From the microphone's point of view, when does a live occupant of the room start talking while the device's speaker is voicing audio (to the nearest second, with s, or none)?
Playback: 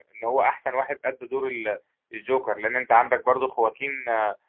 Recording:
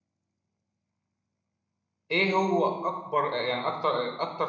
2 s